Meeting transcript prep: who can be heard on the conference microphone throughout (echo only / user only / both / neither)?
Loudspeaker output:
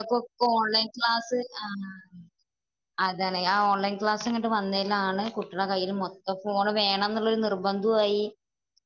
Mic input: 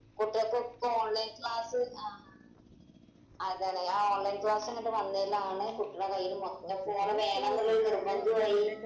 both